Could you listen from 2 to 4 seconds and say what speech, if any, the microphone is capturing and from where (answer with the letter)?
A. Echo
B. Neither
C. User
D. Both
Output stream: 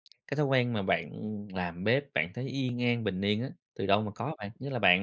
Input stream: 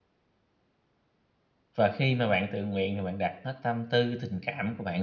C